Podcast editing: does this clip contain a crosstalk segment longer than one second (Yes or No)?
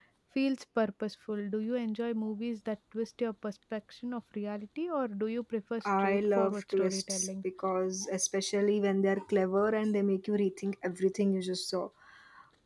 Yes